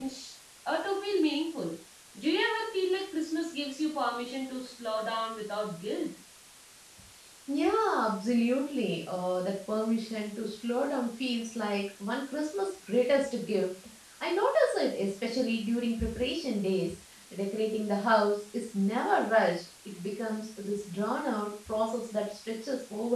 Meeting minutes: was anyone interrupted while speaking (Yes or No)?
No